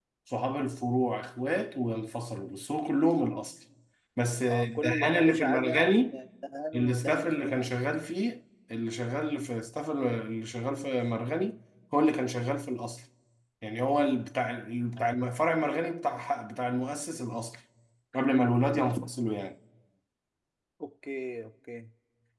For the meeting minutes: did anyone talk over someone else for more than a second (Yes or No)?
Yes